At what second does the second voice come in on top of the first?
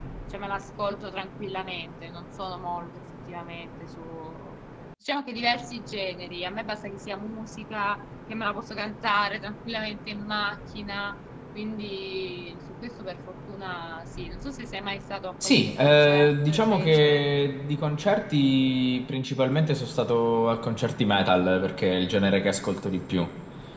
15.4 s

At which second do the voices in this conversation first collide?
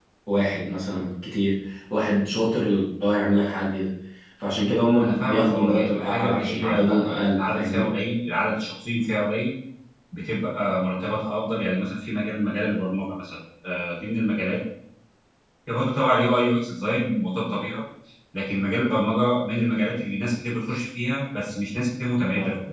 5.0 s

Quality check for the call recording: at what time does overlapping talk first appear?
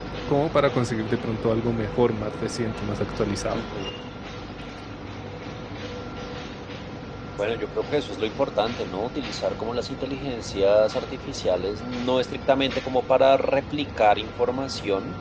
none

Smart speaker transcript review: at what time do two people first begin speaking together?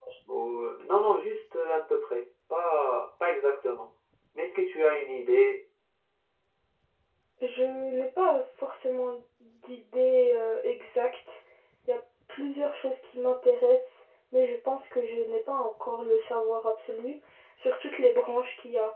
none

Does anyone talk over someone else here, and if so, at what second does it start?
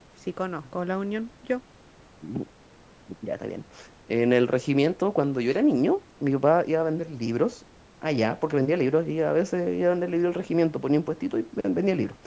none

